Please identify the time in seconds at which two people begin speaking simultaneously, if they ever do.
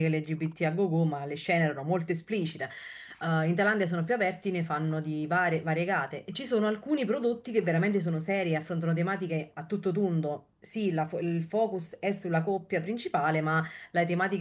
none

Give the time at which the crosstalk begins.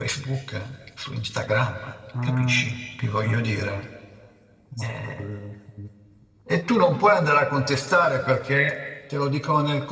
2.2 s

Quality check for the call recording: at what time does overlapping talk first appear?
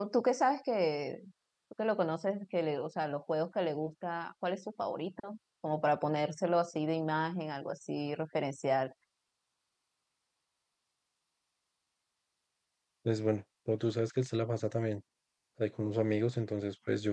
none

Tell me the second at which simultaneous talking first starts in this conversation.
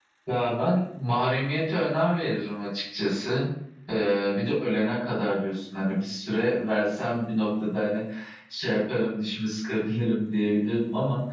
none

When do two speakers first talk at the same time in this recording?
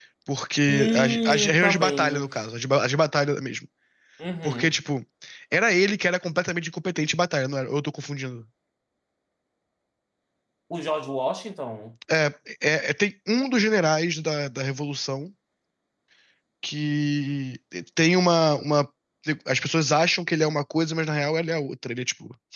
0.7 s

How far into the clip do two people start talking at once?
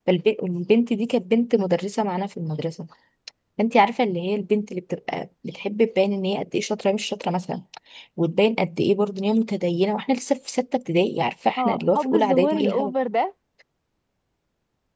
11.6 s

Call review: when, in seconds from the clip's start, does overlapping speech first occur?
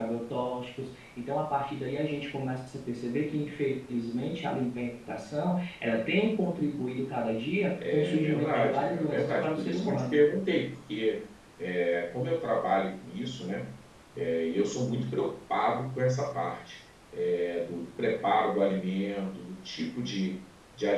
7.8 s

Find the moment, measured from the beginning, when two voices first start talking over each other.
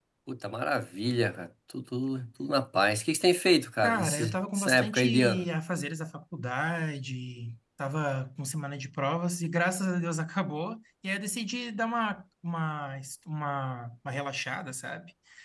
3.8 s

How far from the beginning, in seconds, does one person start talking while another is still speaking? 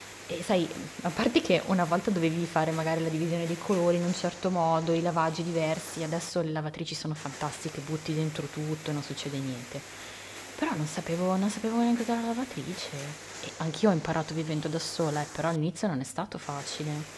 none

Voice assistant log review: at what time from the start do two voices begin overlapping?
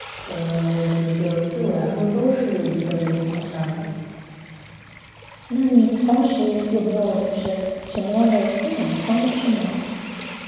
none

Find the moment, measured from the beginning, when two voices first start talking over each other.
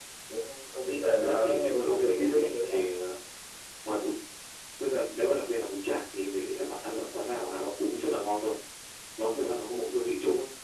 1.2 s

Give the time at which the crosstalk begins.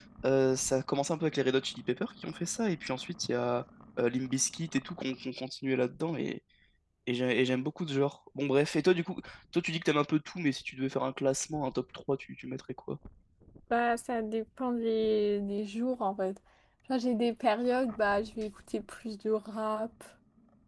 none

